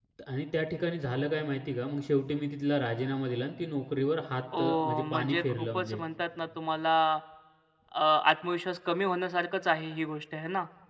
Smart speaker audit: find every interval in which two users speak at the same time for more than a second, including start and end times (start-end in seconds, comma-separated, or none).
4.6-6.0